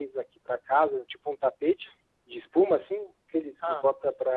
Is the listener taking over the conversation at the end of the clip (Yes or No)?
No